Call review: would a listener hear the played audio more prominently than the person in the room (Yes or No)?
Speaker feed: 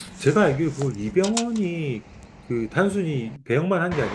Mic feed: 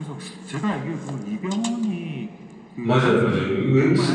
No